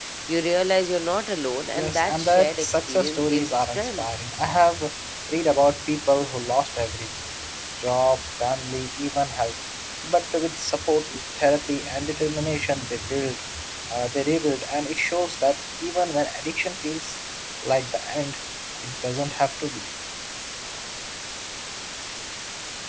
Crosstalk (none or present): present